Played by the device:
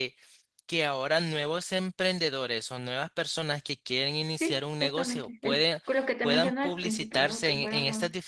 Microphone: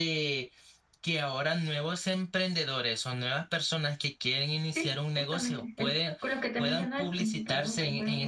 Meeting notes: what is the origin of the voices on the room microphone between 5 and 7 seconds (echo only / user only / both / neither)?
echo only